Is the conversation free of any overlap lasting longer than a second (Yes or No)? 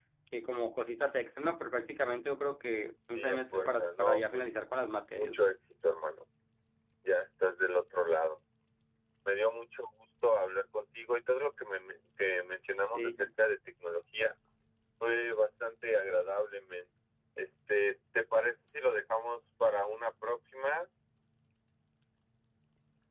No